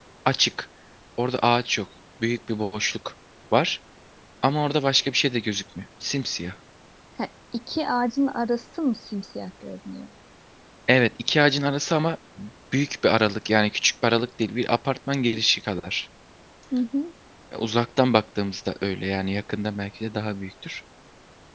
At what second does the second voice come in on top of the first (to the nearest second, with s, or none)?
none